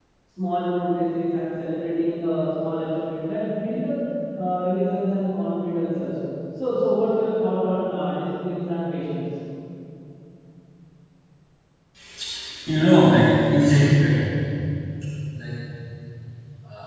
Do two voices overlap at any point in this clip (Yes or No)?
No